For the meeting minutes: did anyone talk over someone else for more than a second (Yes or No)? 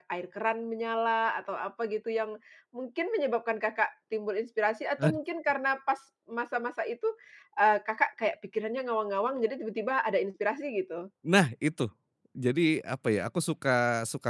No